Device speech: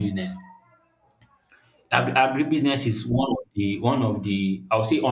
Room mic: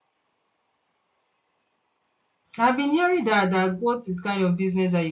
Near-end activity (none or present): present